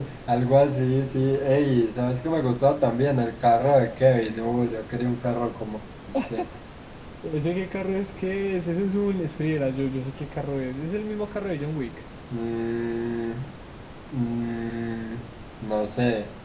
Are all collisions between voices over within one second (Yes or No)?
Yes